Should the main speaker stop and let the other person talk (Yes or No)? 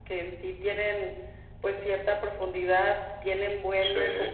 No